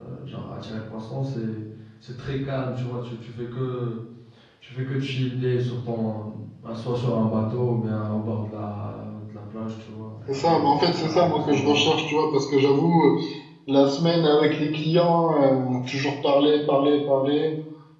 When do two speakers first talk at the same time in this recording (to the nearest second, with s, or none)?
10 s